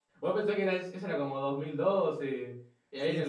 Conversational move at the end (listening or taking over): listening